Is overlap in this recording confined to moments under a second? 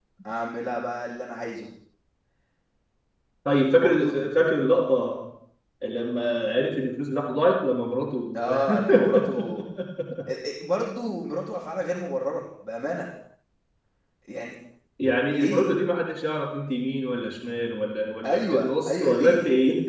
No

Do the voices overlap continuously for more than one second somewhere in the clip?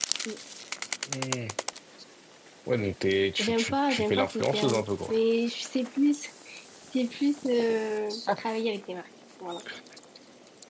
Yes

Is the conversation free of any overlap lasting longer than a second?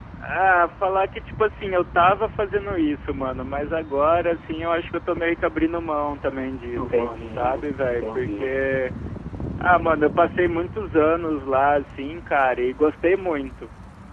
No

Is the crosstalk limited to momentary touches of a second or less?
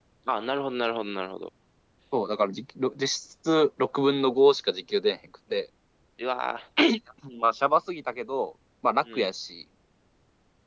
Yes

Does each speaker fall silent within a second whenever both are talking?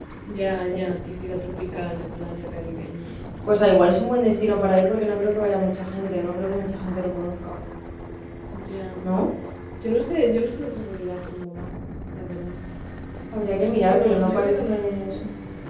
No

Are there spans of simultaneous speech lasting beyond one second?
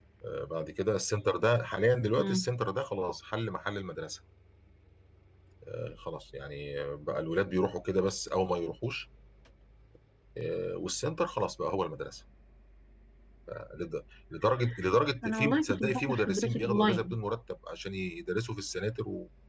Yes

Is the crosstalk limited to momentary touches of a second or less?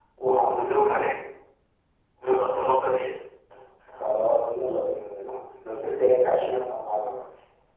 Yes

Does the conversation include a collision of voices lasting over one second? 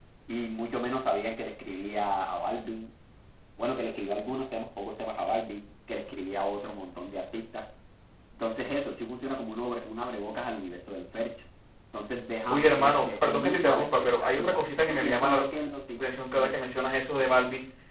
Yes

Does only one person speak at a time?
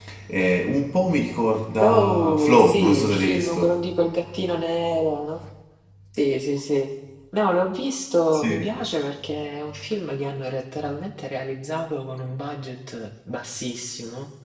No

